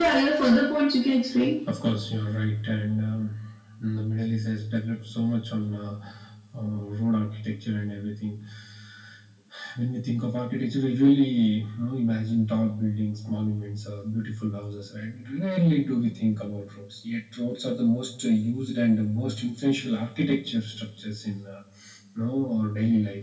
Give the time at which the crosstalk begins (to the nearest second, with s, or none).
none